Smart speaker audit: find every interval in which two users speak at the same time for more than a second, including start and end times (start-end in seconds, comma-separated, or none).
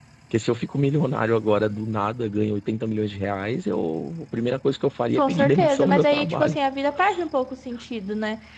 5.2-6.6